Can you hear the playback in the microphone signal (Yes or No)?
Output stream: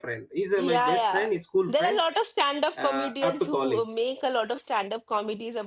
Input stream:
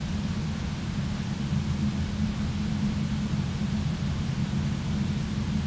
No